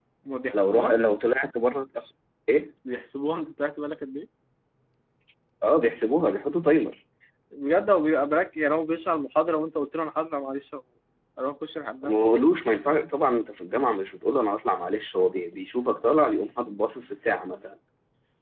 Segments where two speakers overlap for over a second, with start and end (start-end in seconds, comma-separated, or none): none